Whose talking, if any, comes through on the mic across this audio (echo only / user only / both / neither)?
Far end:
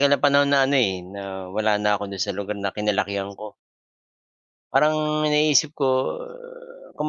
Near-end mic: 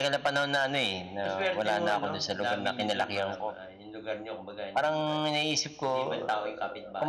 both